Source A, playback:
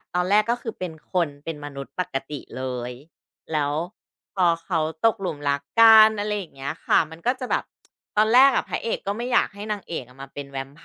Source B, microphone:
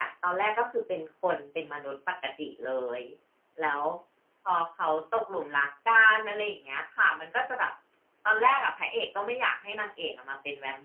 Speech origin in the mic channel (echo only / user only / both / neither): echo only